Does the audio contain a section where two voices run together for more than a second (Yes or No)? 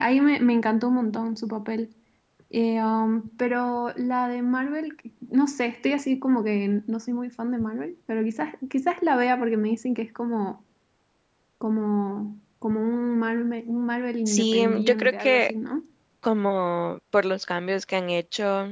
Yes